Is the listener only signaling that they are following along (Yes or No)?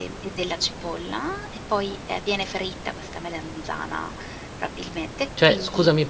No